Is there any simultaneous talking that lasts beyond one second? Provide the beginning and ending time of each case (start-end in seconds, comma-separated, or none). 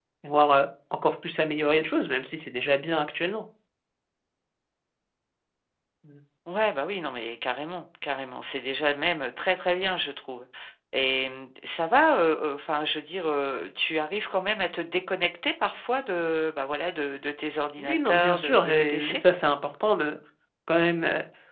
17.8-19.2